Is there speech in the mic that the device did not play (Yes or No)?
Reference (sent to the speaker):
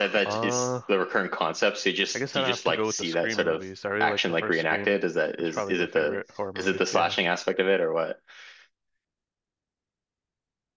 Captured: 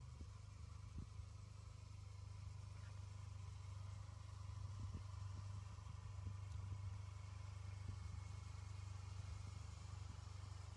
No